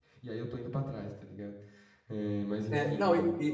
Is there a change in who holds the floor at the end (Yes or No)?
Yes